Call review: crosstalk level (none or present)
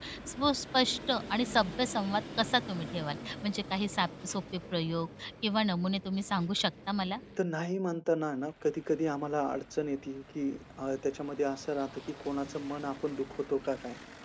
none